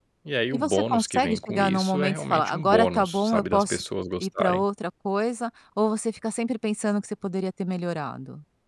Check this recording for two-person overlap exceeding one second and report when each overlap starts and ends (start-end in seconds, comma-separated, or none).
0.5-3.8